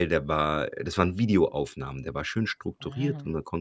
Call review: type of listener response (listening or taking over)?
listening